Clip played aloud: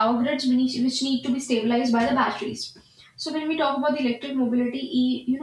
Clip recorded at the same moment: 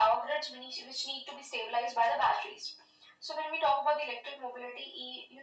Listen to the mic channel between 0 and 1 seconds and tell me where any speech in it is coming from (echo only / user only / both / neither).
echo only